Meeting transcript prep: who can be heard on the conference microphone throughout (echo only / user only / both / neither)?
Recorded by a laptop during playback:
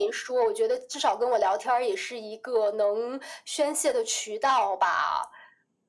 echo only